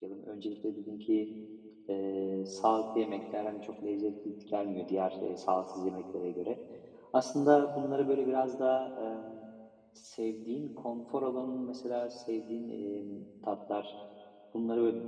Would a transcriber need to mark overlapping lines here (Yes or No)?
No